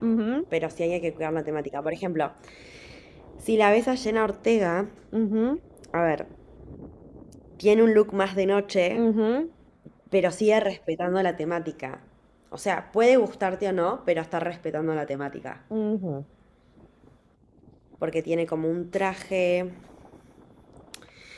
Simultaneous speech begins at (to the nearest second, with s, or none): none